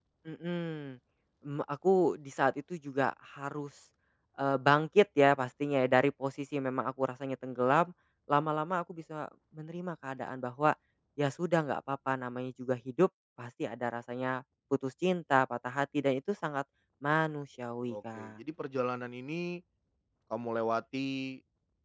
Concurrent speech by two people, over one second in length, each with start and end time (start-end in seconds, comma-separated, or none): none